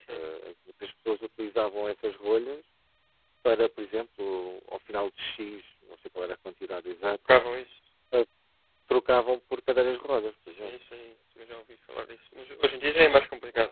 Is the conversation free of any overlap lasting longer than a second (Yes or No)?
Yes